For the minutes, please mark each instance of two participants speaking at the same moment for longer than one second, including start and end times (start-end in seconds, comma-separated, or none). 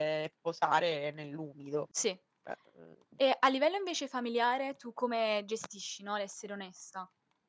none